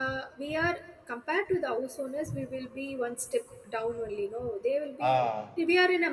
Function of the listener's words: listening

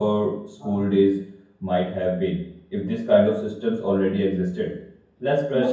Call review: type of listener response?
listening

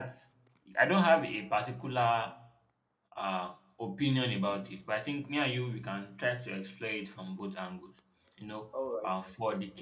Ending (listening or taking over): listening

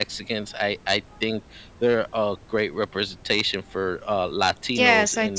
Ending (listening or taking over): taking over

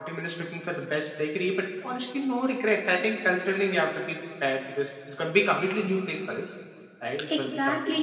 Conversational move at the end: taking over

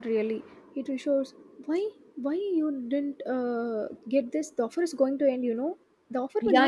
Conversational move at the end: taking over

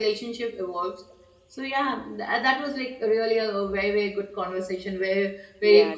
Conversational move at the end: taking over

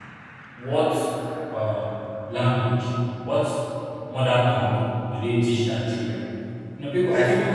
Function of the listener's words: taking over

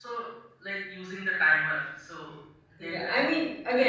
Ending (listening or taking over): taking over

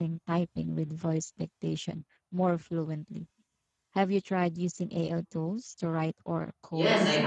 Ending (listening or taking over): taking over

